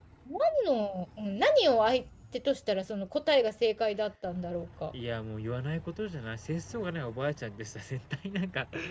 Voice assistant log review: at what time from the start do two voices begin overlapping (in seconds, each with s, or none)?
none